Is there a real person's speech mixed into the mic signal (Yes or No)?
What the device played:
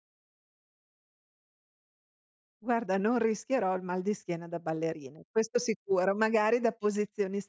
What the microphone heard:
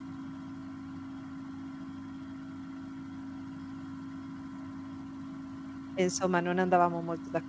Yes